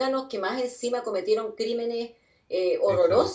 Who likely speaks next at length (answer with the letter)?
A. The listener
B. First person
A